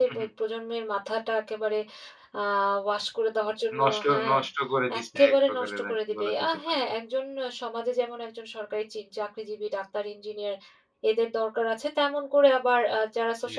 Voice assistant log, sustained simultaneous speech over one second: present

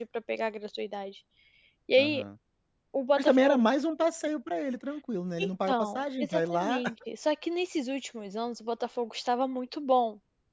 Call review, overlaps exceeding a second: present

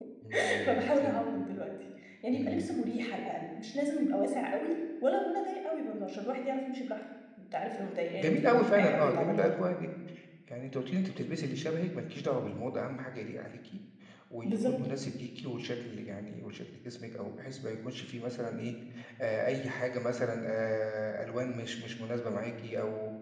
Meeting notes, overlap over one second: present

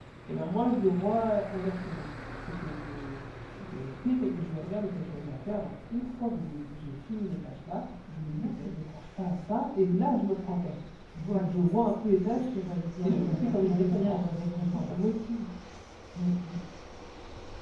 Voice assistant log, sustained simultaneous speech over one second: present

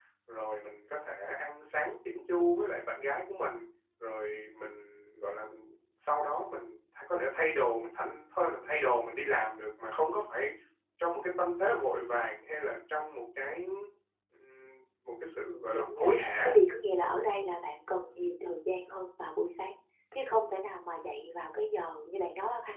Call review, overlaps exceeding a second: present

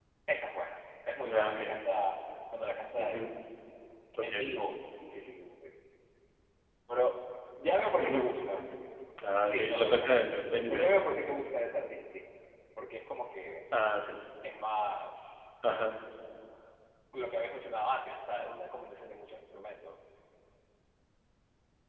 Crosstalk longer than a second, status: present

